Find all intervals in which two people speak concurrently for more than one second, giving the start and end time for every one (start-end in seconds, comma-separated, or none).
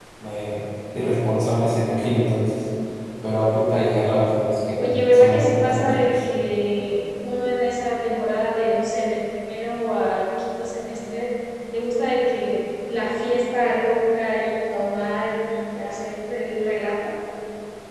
4.8-6.3